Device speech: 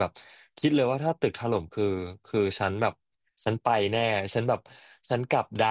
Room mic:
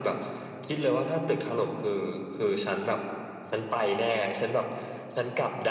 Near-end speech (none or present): none